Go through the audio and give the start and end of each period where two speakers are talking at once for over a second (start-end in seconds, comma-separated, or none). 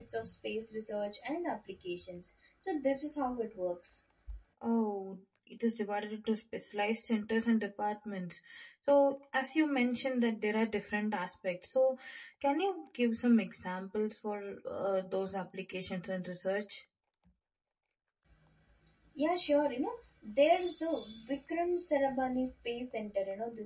none